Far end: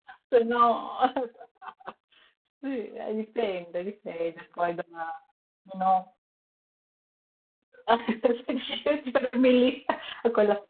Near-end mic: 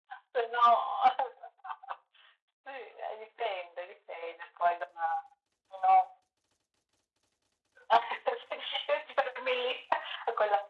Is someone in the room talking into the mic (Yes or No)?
No